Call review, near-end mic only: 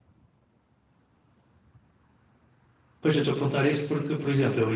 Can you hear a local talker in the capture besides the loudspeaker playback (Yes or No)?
Yes